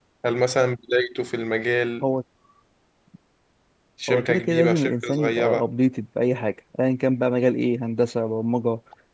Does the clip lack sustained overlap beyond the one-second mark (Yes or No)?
No